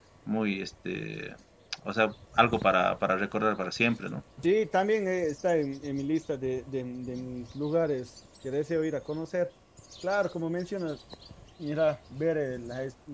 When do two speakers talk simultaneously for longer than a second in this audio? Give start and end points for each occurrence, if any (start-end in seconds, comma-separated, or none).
none